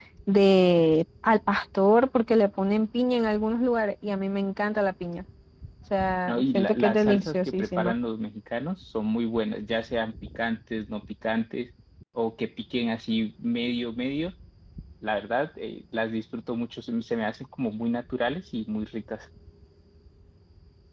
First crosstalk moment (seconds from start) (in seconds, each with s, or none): 6.2 s